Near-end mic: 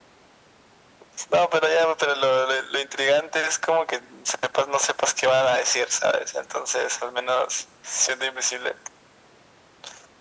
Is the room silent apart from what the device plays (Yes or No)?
Yes